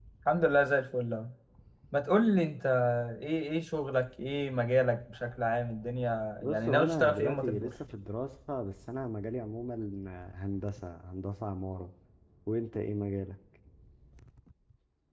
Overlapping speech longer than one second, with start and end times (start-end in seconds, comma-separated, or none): 6.4-7.7